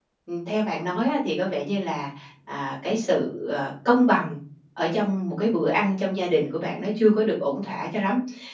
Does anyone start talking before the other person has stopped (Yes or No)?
No